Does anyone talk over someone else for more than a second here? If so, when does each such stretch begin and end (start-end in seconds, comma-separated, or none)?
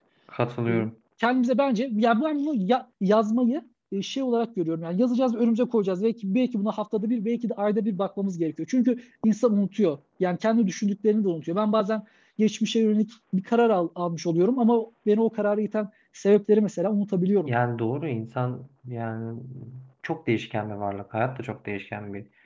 none